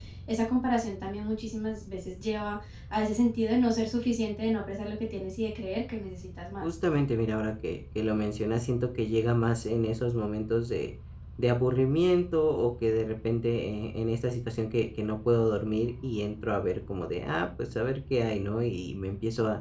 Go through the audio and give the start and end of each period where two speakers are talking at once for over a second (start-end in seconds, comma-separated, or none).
none